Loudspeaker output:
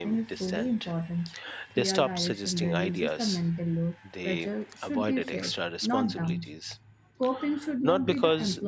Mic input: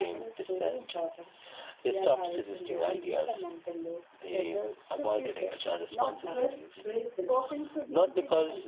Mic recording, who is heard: both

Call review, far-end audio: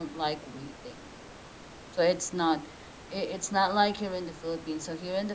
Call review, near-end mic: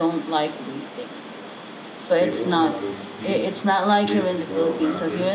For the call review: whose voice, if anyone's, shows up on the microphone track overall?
both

